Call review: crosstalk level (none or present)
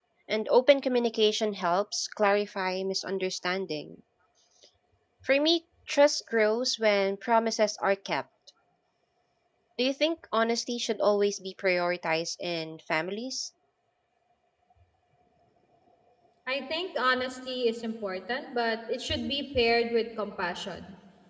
none